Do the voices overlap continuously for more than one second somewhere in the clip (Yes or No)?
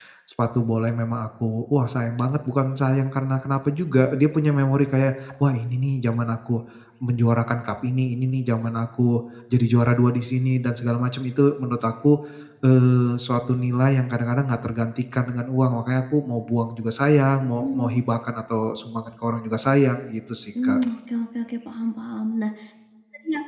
No